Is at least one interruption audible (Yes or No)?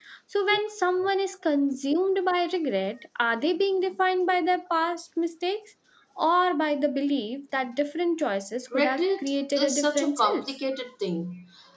Yes